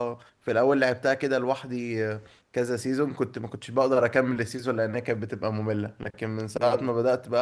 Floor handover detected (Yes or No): No